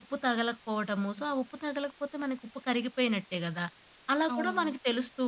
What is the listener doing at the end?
listening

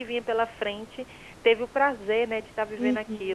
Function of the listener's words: taking over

